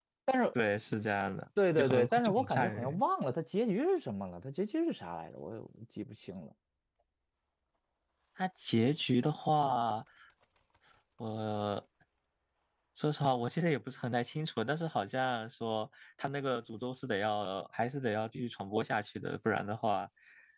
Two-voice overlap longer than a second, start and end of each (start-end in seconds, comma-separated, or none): 1.8-3.0